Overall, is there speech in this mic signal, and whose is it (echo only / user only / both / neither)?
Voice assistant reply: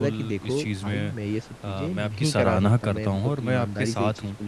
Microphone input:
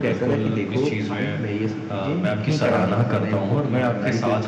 echo only